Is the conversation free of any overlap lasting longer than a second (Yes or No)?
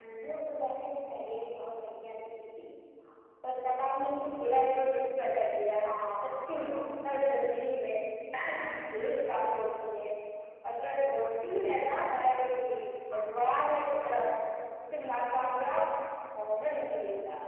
Yes